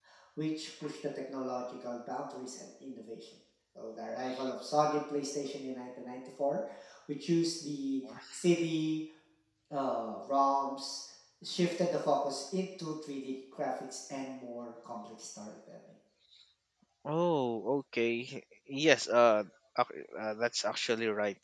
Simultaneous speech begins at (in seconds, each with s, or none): none